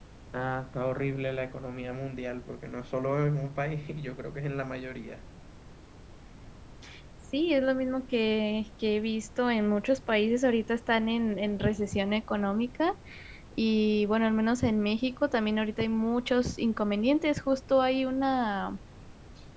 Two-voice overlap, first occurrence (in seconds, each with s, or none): none